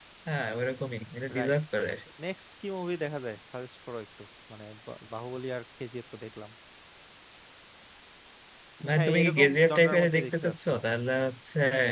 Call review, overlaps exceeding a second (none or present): present